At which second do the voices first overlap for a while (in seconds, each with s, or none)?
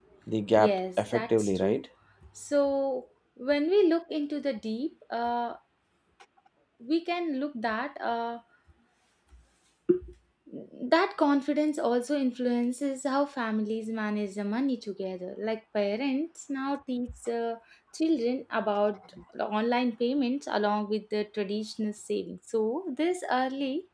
0.5 s